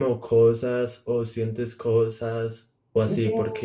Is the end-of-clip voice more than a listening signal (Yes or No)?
No